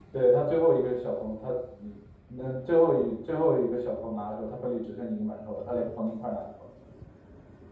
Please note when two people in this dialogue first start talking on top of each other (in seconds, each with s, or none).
none